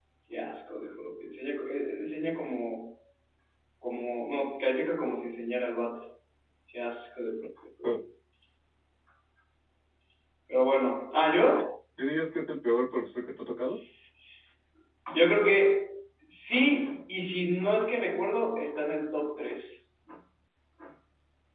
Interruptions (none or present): none